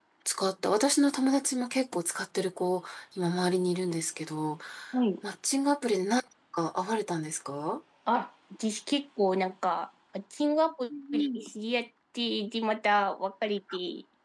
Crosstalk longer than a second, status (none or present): none